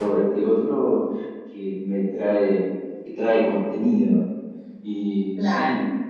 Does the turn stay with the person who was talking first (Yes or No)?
Yes